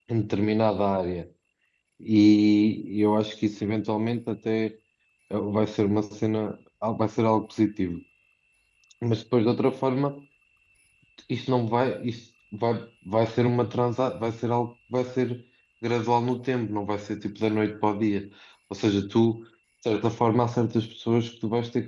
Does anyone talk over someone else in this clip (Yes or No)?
No